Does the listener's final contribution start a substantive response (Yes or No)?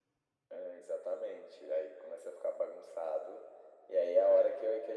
No